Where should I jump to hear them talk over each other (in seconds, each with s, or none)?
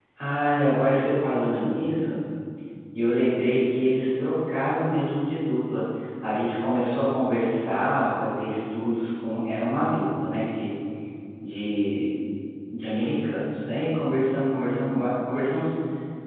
none